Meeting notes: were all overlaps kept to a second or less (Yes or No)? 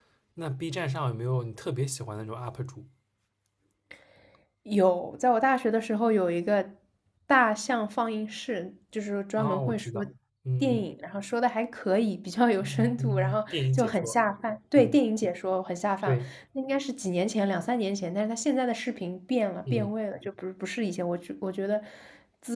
No